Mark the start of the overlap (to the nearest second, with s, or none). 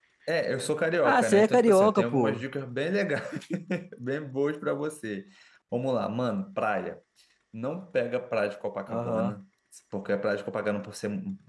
1 s